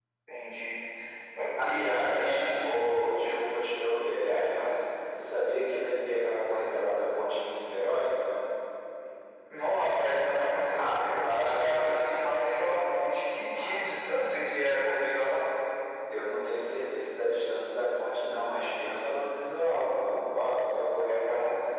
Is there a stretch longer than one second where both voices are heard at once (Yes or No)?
Yes